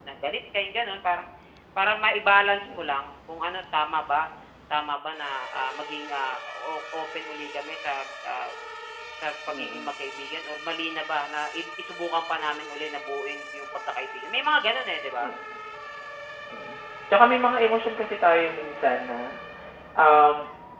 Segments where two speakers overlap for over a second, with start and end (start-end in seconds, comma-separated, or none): none